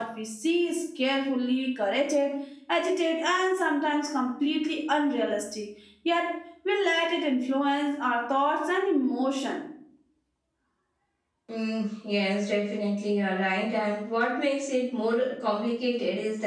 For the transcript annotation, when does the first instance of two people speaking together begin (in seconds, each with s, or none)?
none